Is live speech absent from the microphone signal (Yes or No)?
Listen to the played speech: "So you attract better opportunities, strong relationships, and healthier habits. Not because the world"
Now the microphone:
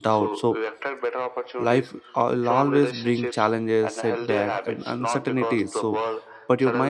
No